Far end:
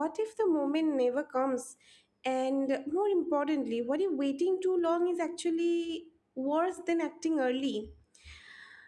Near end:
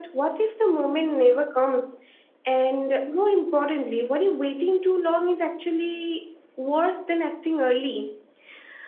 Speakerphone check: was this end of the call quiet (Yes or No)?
Yes